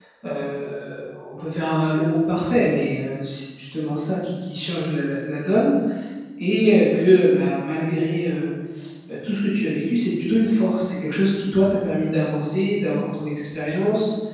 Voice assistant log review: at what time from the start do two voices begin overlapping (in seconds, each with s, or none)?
none